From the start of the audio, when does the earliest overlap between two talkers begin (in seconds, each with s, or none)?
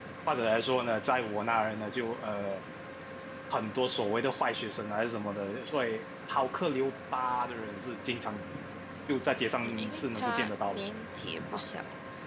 9.6 s